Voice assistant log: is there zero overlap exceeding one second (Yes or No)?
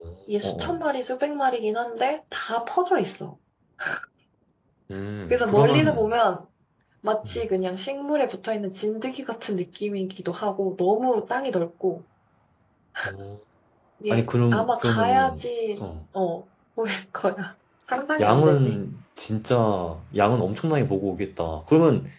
No